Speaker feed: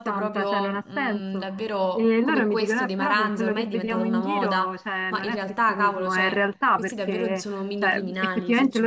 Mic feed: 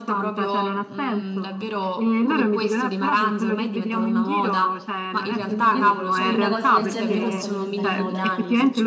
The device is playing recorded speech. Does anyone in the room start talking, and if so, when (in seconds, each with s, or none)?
5.3 s